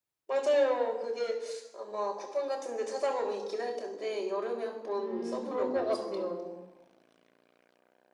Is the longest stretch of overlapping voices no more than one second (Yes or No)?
No